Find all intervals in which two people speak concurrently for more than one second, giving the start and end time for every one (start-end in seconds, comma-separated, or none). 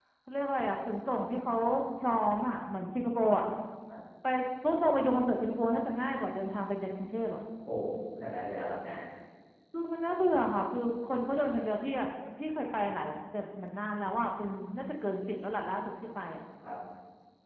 none